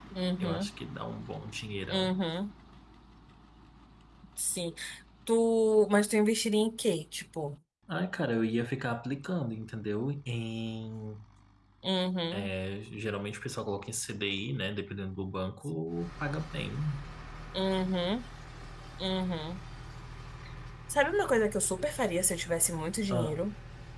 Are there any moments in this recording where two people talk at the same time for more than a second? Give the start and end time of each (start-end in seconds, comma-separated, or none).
none